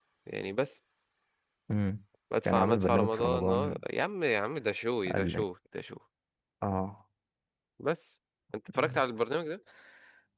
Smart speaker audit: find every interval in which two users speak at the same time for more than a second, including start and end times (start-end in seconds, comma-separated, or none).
2.5-3.8